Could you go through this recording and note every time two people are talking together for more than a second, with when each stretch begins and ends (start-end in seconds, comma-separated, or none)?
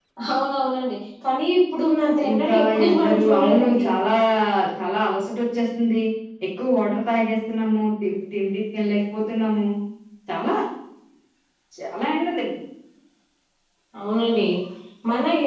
2.3-3.9